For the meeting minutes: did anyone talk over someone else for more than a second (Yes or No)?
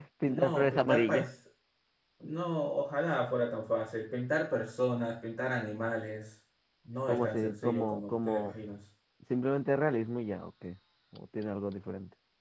Yes